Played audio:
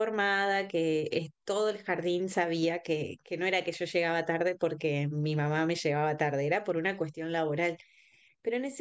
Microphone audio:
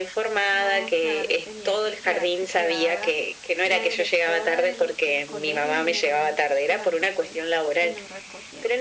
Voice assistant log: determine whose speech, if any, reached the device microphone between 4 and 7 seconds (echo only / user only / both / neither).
both